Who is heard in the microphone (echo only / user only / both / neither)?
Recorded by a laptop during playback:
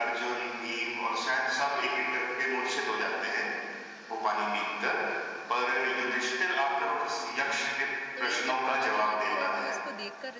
both